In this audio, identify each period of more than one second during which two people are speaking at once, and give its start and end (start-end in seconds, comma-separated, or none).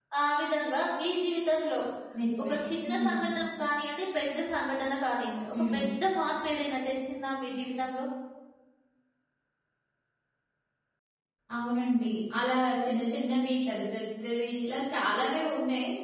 none